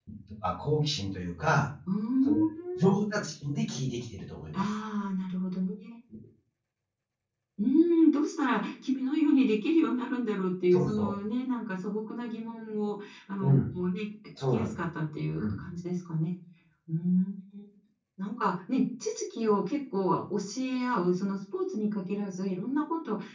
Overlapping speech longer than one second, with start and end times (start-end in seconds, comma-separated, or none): none